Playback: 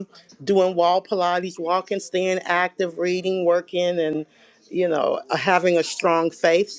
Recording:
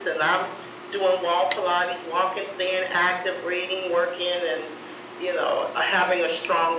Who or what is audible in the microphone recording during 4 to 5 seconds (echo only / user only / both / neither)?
echo only